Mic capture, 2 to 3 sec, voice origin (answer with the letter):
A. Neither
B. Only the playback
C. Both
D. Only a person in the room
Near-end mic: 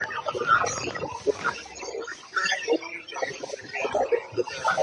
B